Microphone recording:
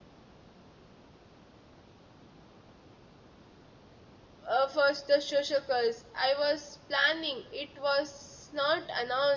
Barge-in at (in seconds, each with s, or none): 4.5 s